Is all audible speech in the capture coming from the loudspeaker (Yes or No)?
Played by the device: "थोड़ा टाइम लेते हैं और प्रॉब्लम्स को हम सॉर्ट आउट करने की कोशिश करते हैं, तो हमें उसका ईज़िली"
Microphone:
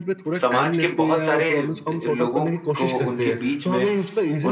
No